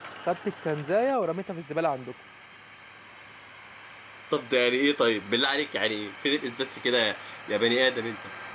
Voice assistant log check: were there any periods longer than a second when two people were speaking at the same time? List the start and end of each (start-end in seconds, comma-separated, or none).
none